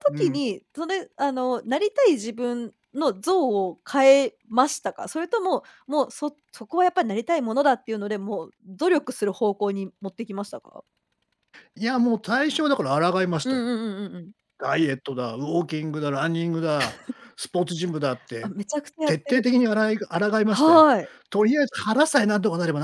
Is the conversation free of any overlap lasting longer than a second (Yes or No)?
Yes